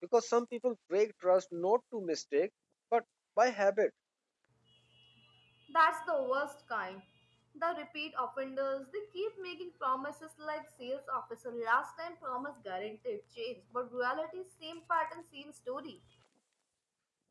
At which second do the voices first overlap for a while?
none

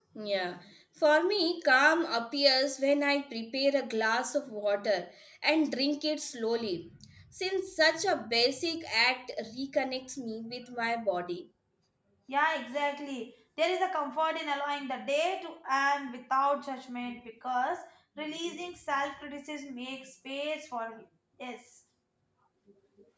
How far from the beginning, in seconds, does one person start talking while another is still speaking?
none

